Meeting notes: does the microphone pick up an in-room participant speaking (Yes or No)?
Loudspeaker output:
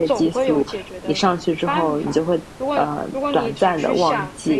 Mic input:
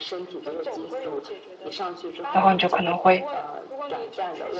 Yes